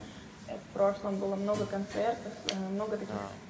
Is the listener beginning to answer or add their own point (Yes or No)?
No